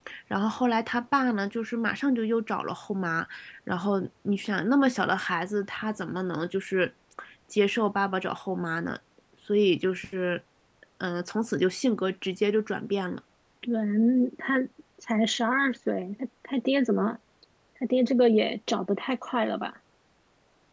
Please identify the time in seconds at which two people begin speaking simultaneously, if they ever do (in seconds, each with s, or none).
none